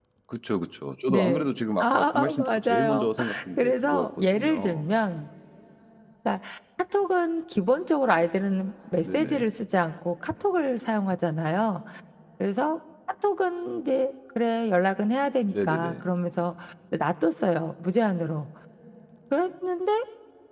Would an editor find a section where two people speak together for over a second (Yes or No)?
Yes